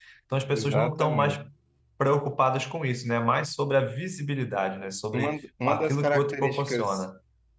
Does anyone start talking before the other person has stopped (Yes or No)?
Yes